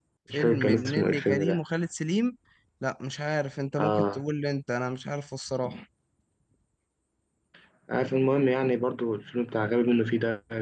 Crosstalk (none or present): present